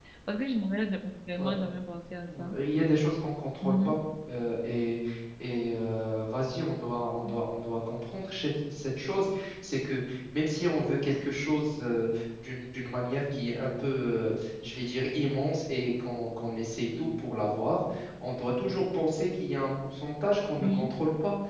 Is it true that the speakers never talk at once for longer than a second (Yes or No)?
Yes